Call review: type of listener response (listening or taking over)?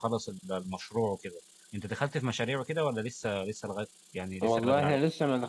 taking over